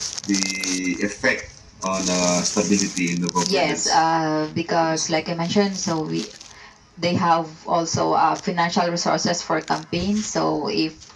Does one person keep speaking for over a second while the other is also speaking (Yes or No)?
No